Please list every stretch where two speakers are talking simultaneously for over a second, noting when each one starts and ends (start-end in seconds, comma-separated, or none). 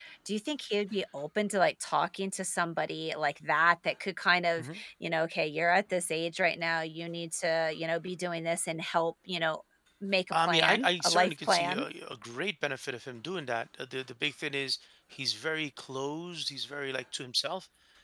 10.3-11.8